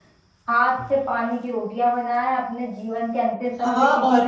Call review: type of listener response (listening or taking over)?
taking over